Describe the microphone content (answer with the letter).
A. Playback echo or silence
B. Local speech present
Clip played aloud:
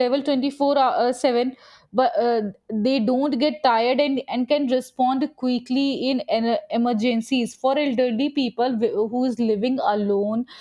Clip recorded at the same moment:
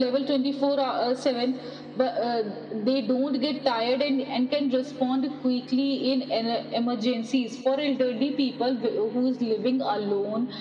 A